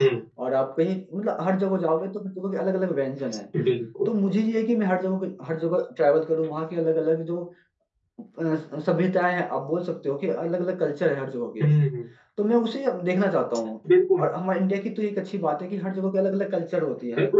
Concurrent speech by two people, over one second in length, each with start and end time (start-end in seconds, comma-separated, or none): none